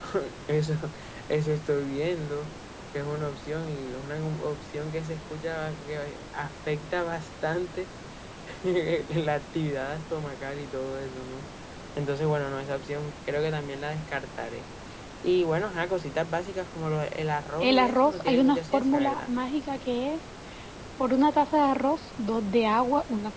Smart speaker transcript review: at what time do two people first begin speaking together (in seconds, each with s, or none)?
17.6 s